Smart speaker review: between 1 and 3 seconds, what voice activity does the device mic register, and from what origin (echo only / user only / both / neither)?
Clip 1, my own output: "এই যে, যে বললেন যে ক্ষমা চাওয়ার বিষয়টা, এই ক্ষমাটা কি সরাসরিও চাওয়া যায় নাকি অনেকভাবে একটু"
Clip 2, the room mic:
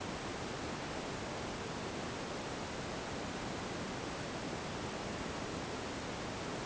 neither